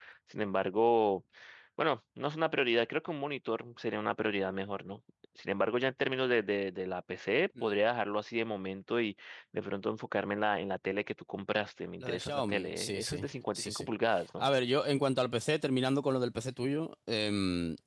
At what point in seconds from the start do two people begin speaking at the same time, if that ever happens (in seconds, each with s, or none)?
12.0 s